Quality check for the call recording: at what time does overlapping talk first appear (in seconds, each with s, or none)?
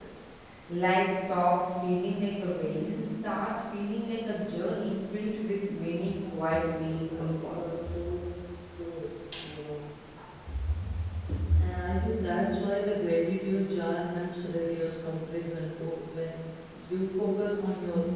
6.6 s